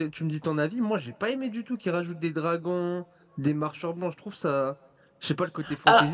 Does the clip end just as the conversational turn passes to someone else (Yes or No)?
Yes